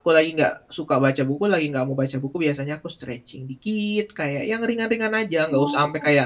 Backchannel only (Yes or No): Yes